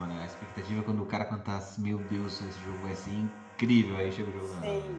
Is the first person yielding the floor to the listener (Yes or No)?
Yes